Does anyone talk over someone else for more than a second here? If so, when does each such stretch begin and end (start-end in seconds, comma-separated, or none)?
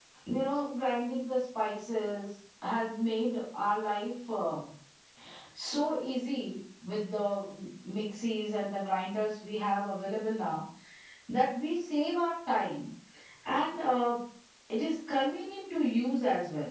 none